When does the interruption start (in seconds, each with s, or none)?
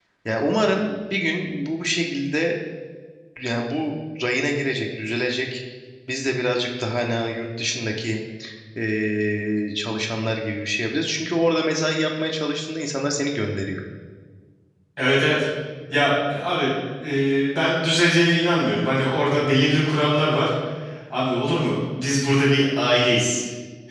none